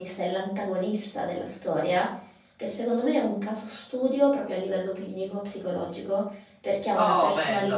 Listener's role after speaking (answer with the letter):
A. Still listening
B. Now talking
A